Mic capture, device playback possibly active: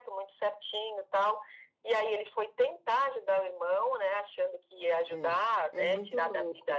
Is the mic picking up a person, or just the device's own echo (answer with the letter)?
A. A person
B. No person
A